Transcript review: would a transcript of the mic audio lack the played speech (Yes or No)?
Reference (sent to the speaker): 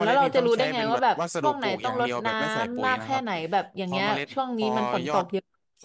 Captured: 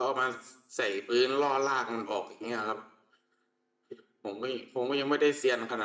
Yes